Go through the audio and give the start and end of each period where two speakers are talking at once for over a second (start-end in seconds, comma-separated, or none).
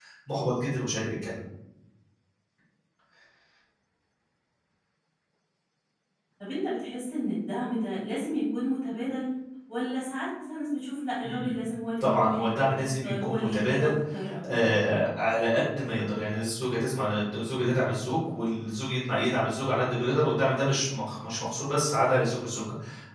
12.0-13.9